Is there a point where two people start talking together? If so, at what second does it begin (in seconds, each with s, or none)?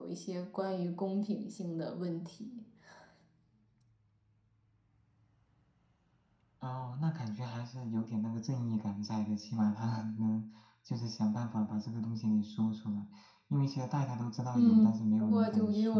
14.5 s